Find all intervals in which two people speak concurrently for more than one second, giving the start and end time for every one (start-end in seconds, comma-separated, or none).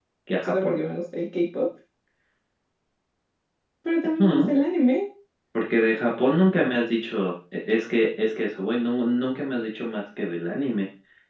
none